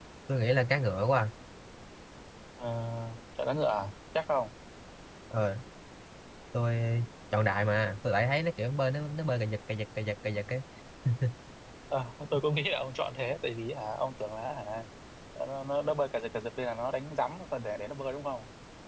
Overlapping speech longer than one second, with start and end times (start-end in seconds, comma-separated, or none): none